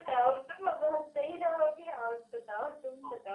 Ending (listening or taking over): taking over